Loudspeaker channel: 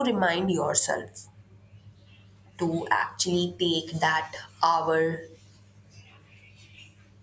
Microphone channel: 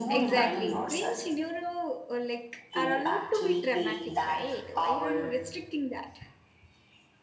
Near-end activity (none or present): present